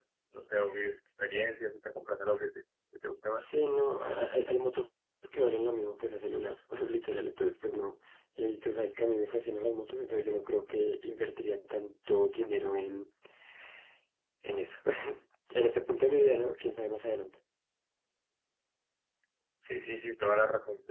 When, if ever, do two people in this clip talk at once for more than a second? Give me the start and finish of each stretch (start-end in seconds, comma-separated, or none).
none